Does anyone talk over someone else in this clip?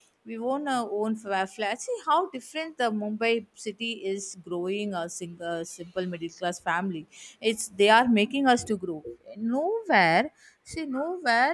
No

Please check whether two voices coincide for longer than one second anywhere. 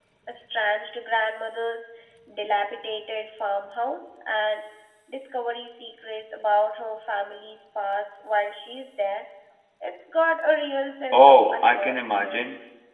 Yes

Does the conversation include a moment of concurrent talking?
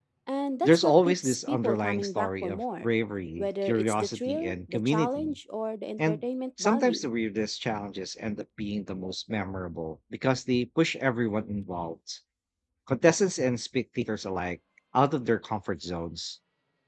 Yes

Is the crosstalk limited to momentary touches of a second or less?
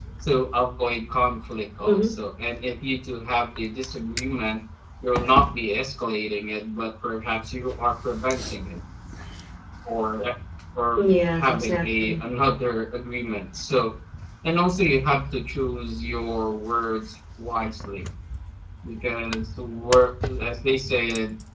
No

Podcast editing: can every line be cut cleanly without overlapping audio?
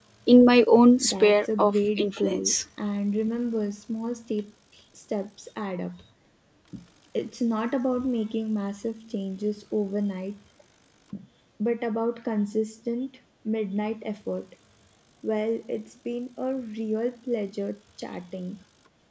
No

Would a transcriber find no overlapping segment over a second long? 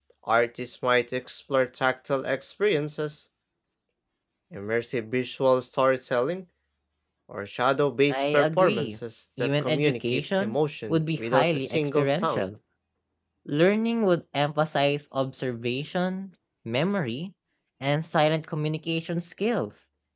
No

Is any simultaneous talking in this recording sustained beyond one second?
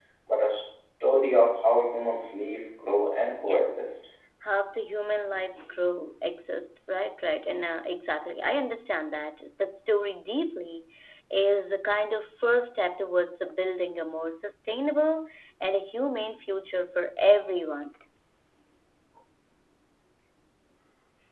No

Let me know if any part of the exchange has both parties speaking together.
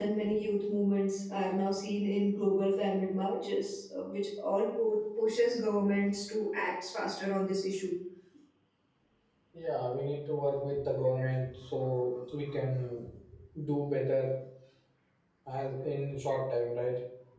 No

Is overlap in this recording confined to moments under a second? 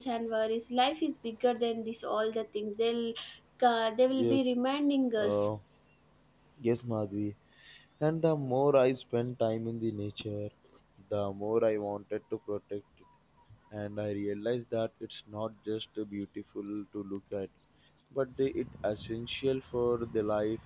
Yes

